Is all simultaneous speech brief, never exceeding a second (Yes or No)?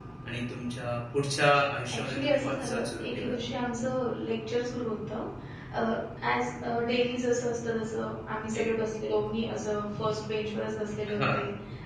No